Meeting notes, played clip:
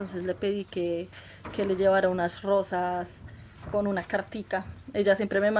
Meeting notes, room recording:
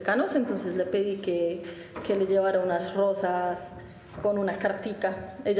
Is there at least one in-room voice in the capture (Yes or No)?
No